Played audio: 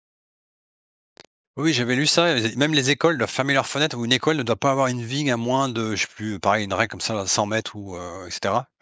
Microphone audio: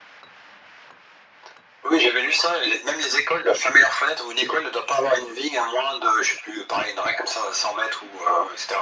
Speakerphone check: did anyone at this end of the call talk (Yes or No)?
No